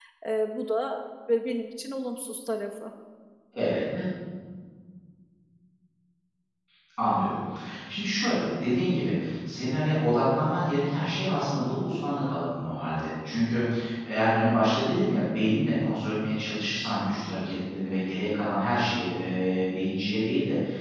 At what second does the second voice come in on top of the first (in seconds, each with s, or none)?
none